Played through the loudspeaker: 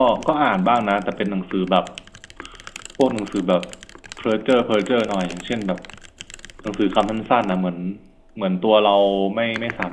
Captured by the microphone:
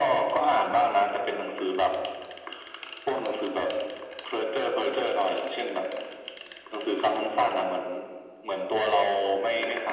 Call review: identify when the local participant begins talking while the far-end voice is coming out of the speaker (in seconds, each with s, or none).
none